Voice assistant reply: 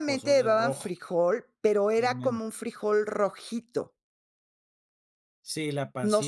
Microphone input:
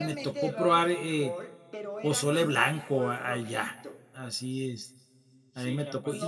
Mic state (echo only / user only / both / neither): both